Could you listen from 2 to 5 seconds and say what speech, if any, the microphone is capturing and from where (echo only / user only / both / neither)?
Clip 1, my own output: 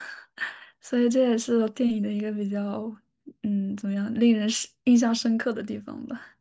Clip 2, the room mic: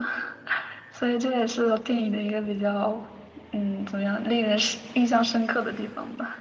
echo only